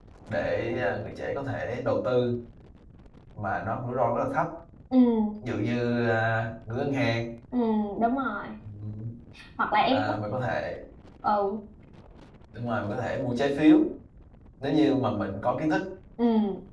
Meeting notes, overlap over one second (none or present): none